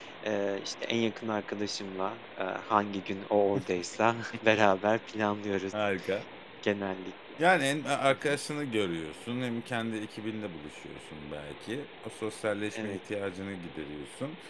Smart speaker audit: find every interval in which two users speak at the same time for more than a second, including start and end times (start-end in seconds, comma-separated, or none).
none